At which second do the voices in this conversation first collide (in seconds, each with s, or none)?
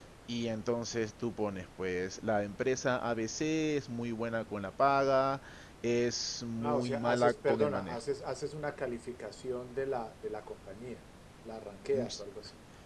6.6 s